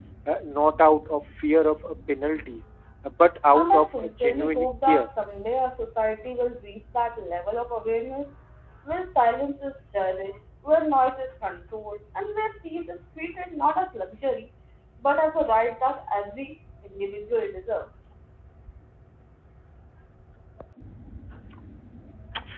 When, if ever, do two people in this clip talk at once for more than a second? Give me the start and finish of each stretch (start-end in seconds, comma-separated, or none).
3.5-5.1